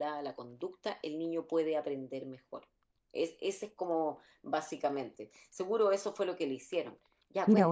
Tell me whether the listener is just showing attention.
No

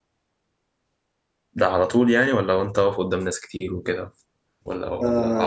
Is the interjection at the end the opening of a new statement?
Yes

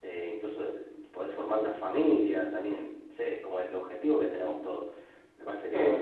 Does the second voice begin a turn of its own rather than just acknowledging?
No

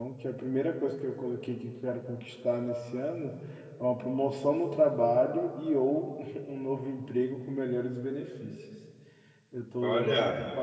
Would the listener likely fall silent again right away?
Yes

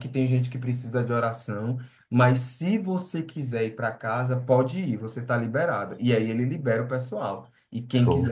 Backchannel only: Yes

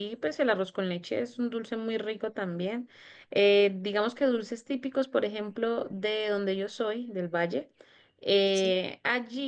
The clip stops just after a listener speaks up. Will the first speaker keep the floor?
Yes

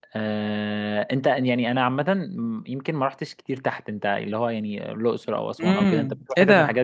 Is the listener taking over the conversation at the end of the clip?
Yes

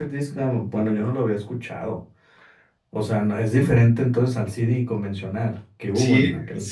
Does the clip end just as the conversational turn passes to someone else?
Yes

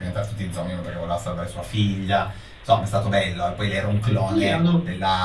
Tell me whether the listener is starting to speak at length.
Yes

